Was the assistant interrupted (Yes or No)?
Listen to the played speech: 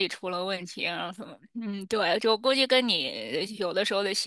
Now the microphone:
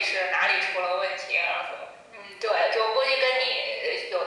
No